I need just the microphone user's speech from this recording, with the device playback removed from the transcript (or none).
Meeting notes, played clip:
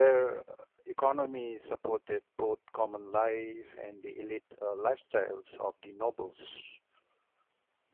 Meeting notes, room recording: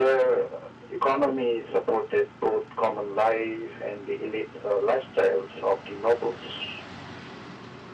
none